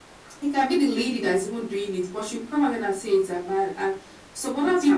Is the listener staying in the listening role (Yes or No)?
Yes